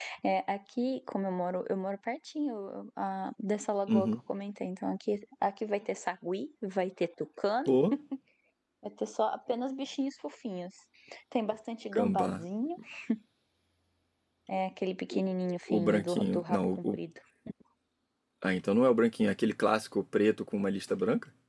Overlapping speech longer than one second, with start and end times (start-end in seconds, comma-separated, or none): 15.7-17.0